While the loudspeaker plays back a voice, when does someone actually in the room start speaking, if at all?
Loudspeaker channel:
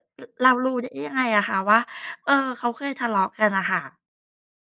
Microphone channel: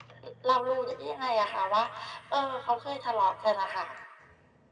none

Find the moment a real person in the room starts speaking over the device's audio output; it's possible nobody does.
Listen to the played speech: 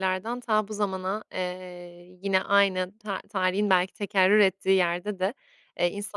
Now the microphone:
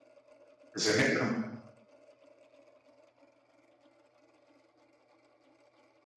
1 s

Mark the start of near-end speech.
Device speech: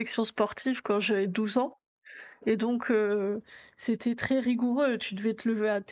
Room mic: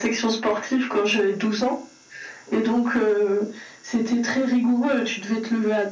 none

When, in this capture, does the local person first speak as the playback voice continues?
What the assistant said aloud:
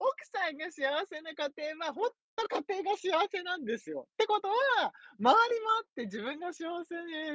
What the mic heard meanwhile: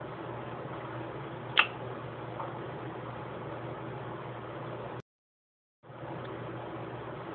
none

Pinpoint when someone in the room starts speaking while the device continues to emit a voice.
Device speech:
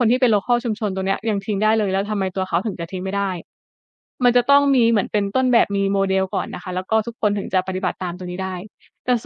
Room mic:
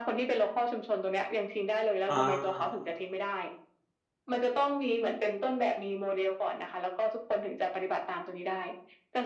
2 s

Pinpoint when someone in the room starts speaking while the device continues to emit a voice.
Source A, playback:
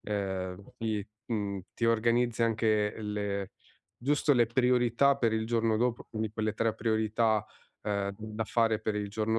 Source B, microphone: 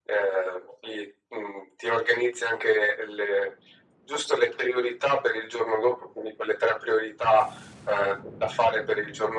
none

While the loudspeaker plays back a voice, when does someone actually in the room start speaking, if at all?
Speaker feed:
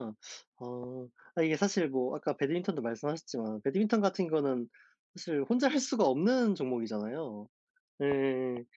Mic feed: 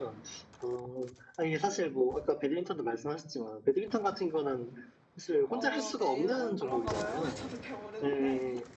6 s

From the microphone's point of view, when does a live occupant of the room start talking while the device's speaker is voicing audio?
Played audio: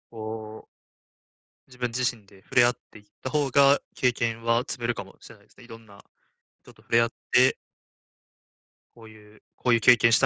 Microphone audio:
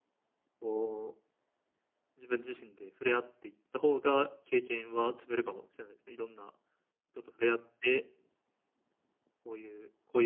none

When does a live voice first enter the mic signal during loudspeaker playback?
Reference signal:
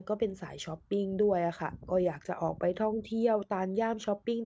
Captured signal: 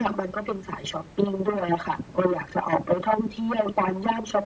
none

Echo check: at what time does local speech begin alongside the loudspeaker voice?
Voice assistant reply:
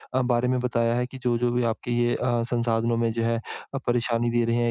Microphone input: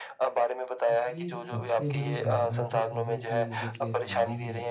1 s

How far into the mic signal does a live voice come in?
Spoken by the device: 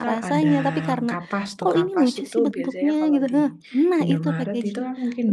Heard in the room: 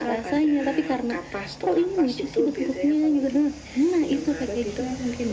none

